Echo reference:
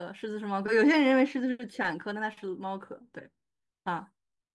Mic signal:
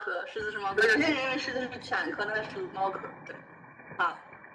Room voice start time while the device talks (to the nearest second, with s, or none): none